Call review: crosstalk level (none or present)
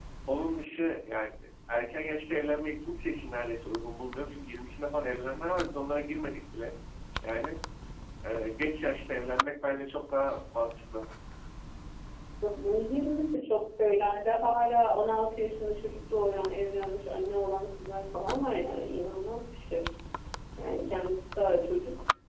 none